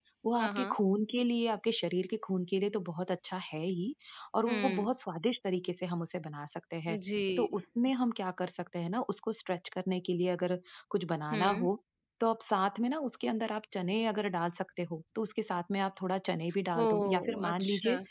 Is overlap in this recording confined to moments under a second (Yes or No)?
No